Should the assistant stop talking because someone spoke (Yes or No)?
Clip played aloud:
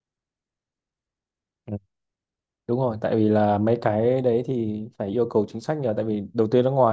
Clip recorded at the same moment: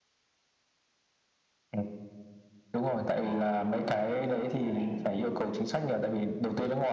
Yes